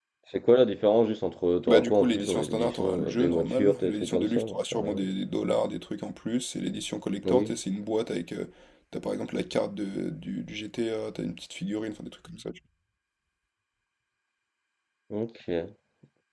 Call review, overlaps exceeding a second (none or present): present